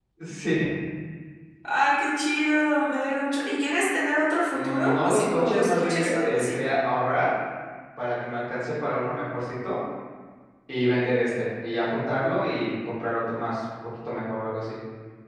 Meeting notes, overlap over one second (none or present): present